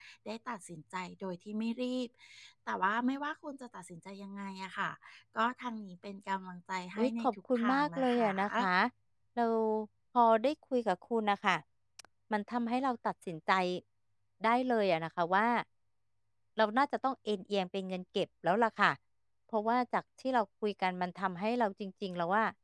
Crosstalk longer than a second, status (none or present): present